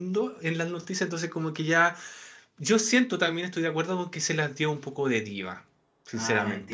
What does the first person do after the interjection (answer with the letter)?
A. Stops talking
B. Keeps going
A